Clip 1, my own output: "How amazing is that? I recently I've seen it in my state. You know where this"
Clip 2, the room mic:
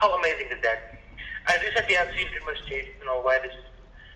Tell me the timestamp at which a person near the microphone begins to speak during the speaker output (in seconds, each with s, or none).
none